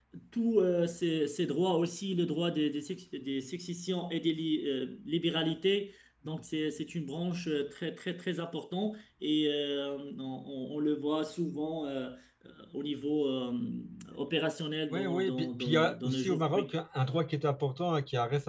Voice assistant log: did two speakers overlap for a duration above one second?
Yes, from 14.9 s

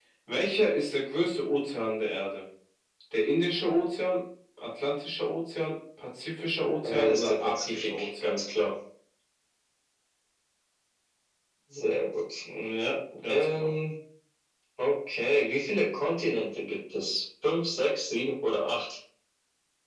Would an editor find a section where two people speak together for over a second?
Yes, from 6.8 s

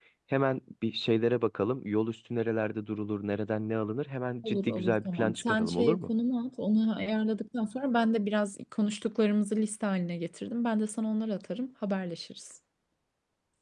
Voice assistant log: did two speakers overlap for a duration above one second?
Yes, from 4.4 s

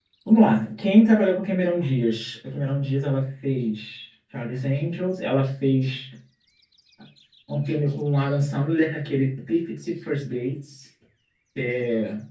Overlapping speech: No

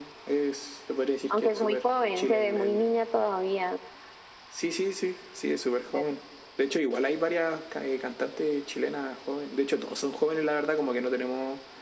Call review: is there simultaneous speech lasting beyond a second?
Yes, from 1.3 s

